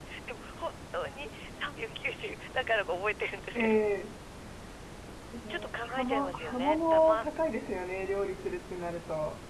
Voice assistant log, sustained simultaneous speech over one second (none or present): present